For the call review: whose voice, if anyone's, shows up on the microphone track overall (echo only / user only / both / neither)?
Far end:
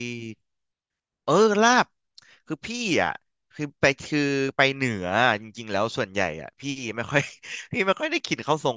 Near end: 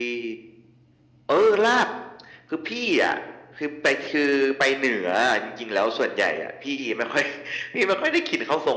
echo only